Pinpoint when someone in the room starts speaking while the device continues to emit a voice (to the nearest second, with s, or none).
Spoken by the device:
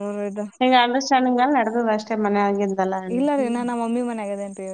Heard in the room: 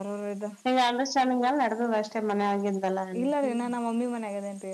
none